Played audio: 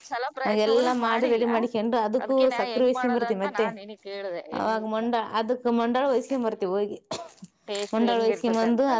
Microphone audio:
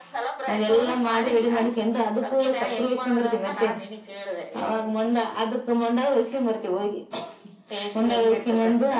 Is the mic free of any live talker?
Yes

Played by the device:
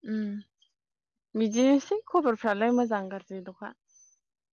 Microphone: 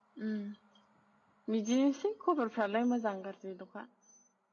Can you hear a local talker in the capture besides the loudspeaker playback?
No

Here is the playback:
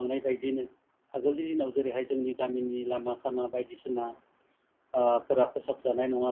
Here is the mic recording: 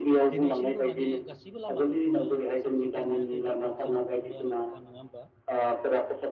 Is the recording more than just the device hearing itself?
Yes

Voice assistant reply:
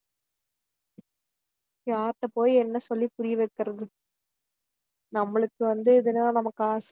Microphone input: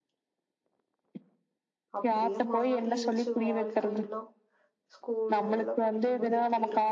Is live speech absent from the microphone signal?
No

